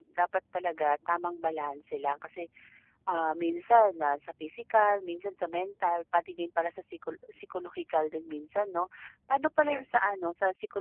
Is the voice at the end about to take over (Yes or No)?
No